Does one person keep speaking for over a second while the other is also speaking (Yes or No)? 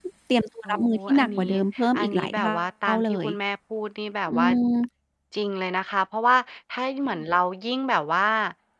Yes